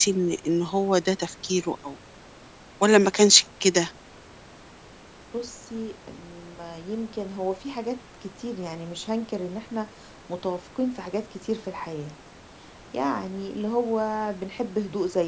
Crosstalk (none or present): none